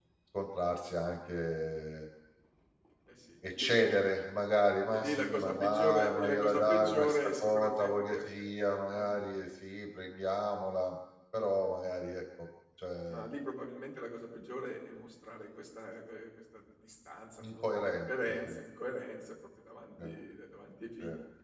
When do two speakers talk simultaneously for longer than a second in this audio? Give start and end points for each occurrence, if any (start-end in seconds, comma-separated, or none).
4.9-8.2, 17.4-18.6